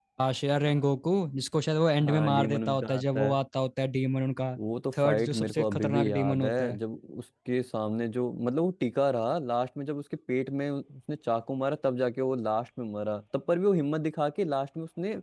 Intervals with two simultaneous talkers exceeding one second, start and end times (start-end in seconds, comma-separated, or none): 2.0-3.4, 5.0-6.8